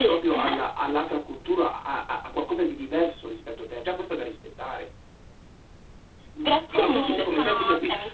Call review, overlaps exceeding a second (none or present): present